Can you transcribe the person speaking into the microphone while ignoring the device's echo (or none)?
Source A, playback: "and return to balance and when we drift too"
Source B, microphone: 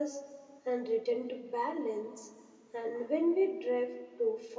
none